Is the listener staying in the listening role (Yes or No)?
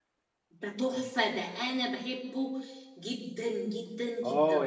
No